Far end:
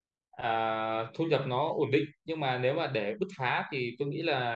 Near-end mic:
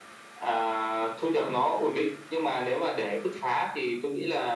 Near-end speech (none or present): none